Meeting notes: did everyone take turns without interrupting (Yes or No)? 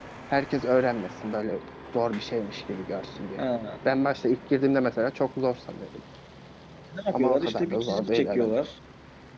No